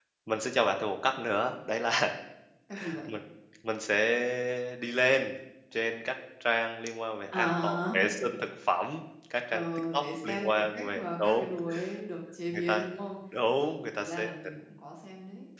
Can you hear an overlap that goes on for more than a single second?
Yes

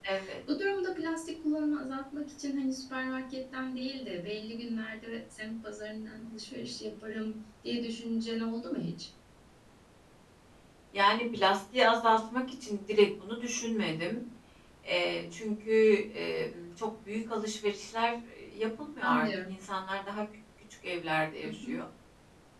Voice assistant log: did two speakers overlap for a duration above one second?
No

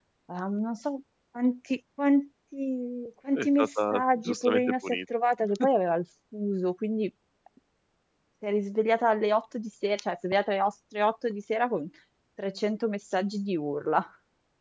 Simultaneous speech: Yes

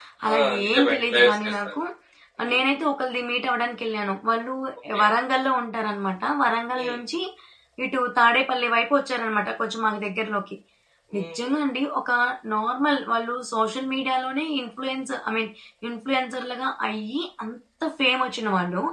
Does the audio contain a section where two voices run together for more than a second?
Yes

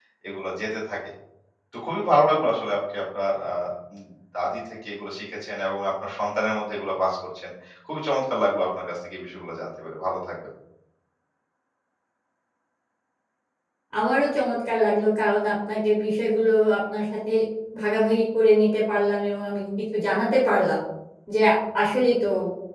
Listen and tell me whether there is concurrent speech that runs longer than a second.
No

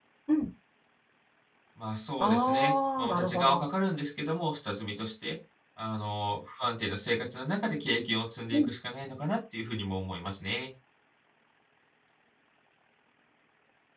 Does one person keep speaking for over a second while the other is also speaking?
Yes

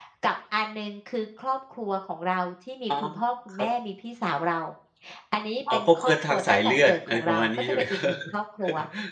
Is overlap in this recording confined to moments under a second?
No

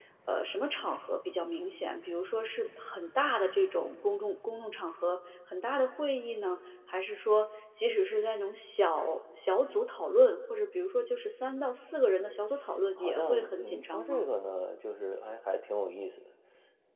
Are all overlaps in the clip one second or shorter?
No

